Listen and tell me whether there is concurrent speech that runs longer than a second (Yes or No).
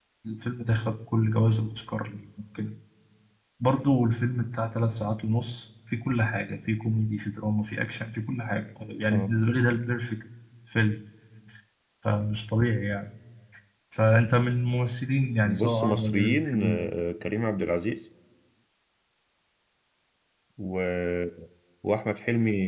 Yes